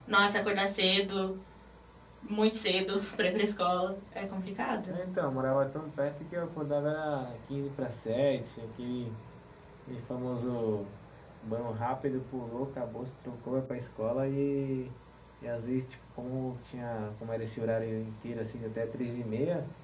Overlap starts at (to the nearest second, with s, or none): none